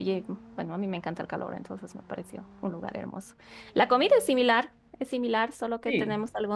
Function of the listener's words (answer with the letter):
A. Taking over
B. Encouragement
B